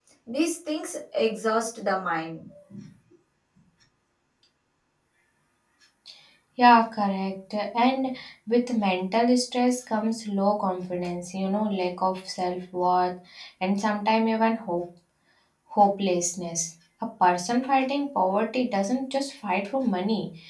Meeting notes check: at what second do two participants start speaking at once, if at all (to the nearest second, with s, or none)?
none